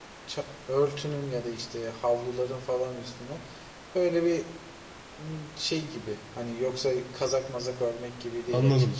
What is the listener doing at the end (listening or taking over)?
taking over